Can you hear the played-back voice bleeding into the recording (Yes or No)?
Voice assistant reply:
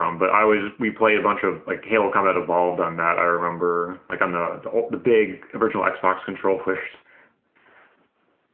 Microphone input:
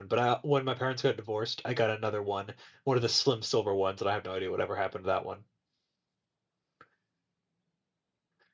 No